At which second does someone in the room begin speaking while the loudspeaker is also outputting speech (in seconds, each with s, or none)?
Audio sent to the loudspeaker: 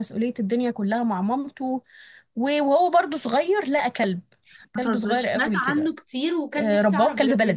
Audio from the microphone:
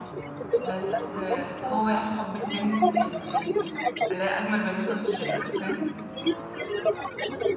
0.6 s